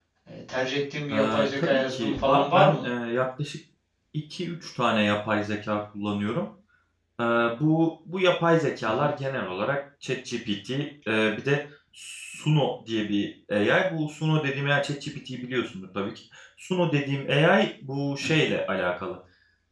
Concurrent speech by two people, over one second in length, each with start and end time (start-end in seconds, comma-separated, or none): 1.1-2.9